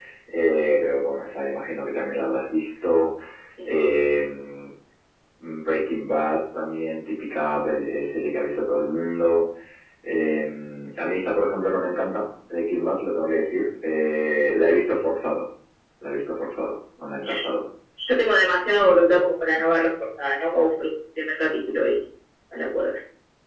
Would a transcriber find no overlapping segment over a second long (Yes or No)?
Yes